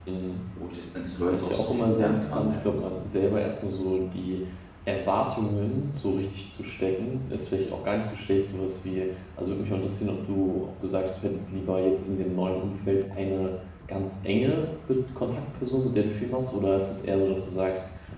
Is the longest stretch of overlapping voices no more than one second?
No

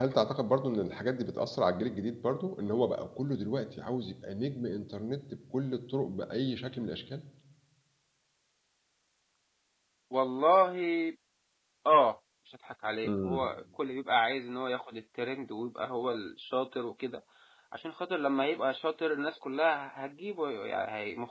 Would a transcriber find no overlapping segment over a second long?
Yes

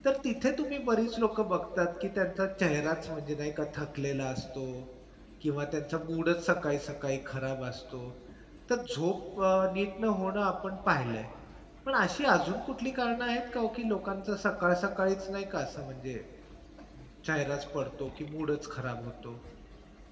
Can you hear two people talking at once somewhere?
No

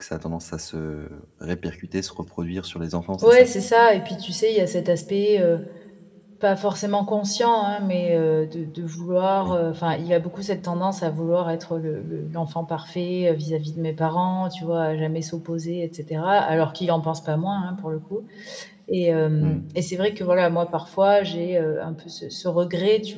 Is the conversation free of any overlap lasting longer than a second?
Yes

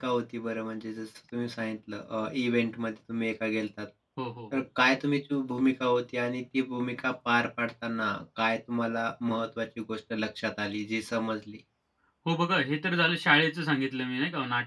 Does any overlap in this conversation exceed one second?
No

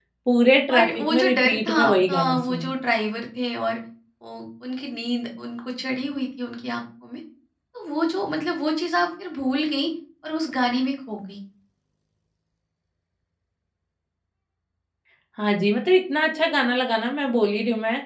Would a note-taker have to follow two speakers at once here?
Yes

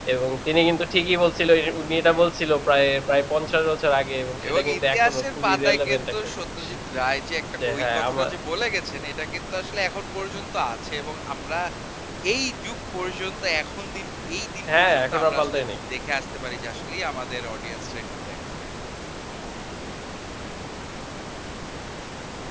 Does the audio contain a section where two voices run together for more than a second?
Yes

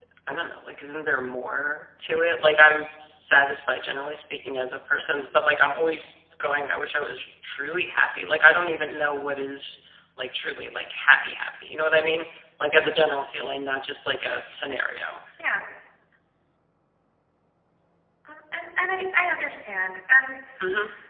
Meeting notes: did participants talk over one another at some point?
No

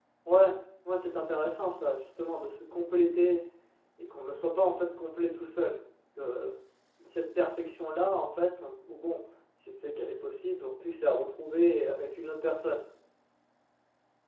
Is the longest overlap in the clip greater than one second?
No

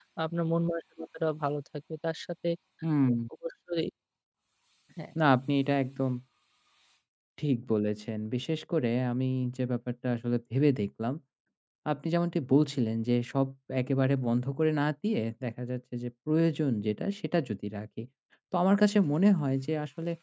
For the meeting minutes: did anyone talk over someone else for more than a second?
No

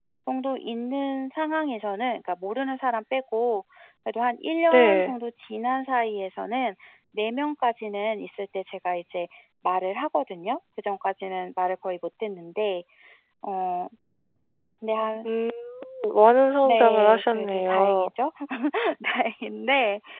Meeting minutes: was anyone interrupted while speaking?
Yes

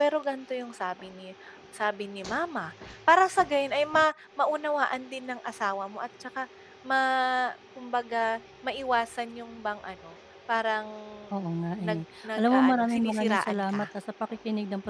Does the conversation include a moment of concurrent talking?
Yes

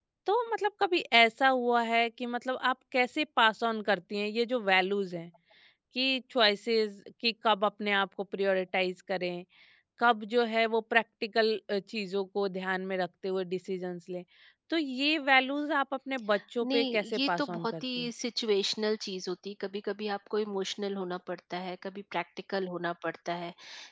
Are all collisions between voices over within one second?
No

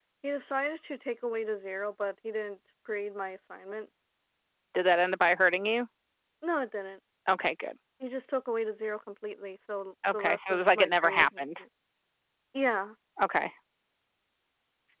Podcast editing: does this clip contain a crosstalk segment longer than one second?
Yes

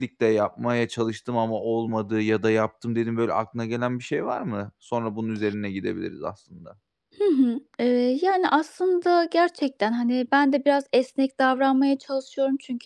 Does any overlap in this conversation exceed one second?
No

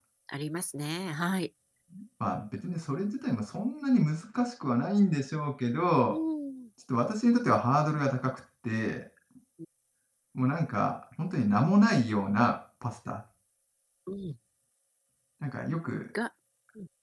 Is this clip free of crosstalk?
Yes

